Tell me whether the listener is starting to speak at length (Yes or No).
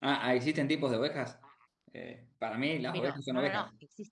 Yes